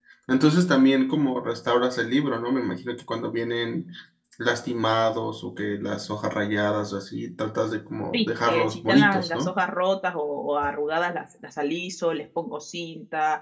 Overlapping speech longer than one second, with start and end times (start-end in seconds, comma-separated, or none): 8.1-9.6